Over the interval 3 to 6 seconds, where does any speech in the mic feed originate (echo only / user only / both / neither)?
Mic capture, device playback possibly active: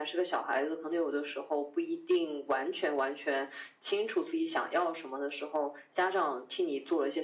echo only